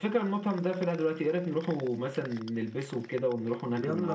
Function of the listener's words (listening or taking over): taking over